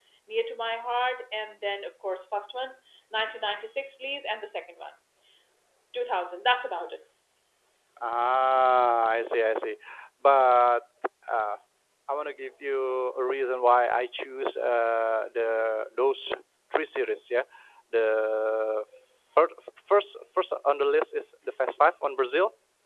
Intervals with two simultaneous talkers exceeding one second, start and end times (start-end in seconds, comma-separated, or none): none